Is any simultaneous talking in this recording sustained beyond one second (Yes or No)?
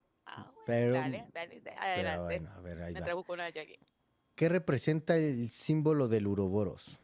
No